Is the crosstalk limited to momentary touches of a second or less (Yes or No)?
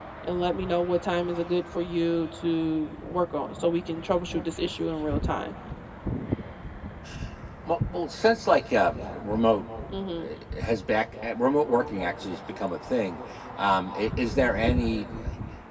Yes